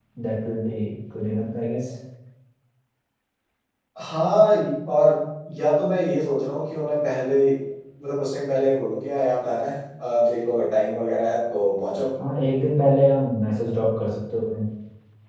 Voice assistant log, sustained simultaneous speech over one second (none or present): none